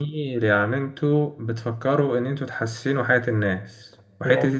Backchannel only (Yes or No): Yes